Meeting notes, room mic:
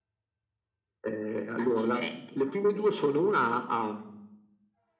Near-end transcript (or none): none